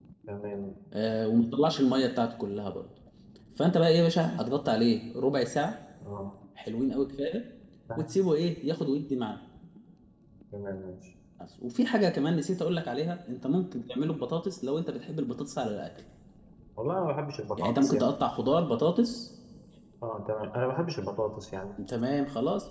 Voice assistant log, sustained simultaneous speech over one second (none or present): none